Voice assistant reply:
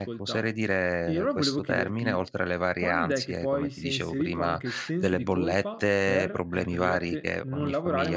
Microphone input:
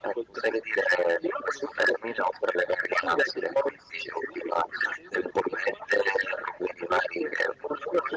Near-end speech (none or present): none